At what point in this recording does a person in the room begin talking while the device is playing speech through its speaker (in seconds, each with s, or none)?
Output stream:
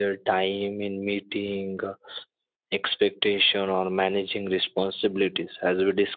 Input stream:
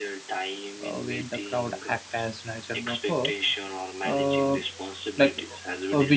0.8 s